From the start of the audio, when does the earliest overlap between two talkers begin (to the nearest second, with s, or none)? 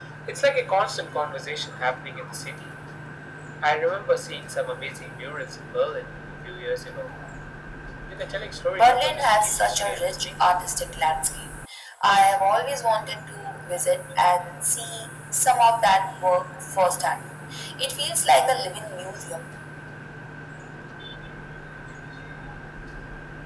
9 s